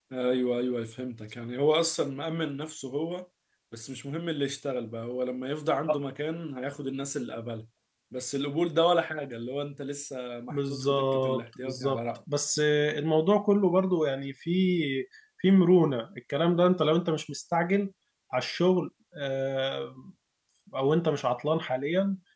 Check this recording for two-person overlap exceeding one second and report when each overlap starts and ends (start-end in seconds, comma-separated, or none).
10.5-12.0